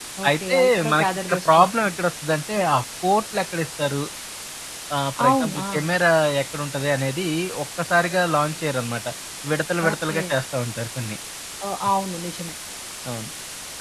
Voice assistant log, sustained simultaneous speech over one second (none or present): present